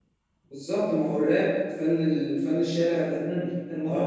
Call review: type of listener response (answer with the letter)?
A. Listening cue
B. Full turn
B